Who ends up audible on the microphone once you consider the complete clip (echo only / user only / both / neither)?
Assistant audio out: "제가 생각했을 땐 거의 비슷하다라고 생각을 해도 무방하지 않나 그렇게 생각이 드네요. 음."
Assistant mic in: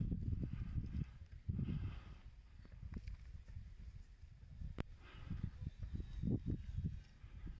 neither